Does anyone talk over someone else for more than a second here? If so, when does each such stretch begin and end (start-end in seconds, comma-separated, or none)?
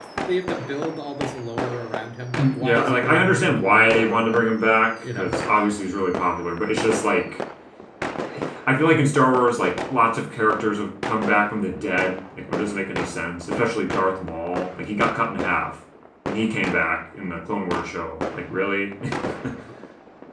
2.4-4.5